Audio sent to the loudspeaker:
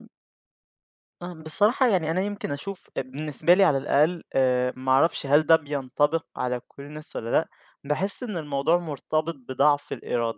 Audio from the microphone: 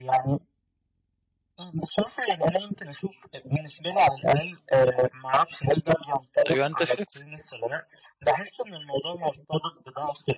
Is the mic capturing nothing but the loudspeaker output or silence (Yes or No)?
No